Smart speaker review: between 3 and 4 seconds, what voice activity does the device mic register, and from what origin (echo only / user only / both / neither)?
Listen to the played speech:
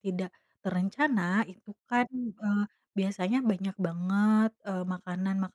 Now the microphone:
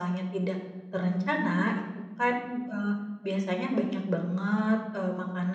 echo only